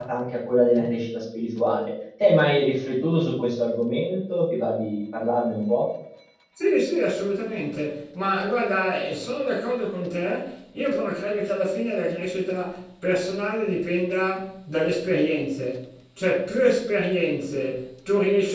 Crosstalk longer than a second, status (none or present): none